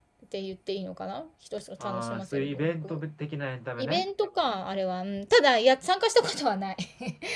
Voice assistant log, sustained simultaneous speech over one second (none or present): present